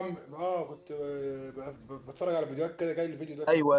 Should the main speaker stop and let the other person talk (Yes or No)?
Yes